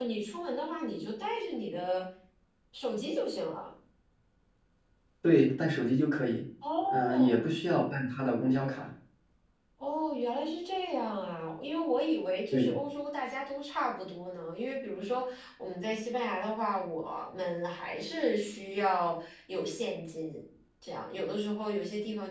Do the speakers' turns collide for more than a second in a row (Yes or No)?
No